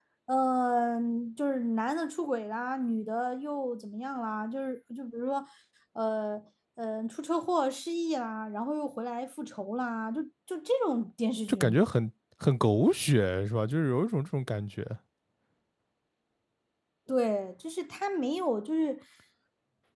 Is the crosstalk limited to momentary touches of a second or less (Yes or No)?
Yes